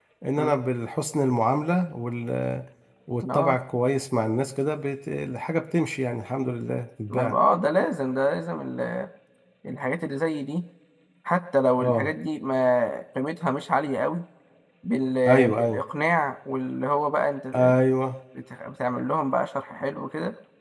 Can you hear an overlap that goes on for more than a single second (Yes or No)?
No